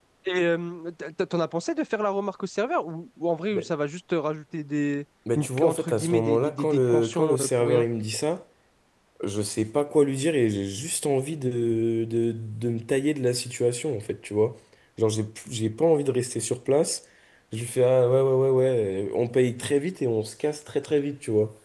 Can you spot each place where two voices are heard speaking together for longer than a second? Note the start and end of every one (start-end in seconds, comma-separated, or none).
5.3-7.8